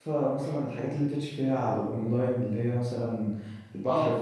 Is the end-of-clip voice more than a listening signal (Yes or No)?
No